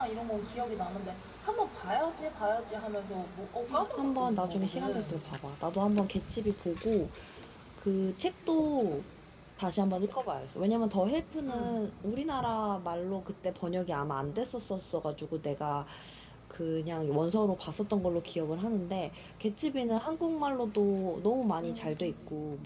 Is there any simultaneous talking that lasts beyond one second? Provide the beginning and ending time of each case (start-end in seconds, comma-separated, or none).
4.0-5.2